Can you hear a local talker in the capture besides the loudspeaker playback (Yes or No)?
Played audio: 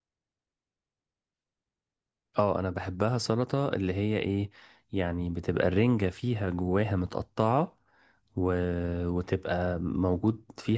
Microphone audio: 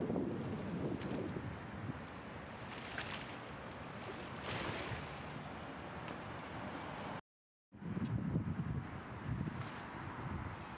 No